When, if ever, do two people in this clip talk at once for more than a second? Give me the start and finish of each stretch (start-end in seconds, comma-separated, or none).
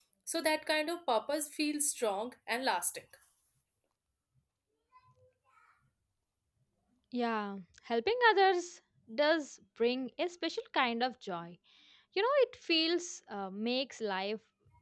none